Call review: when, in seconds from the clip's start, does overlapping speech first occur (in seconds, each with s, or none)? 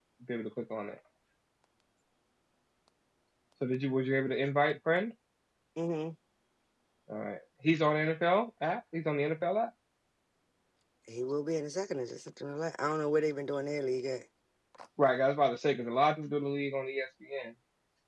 none